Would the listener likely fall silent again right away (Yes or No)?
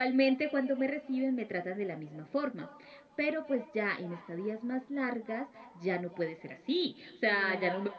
Yes